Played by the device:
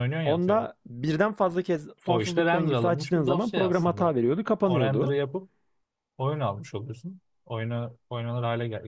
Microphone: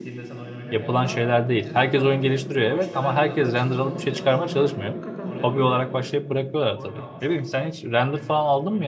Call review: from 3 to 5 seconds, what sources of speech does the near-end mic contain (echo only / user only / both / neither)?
both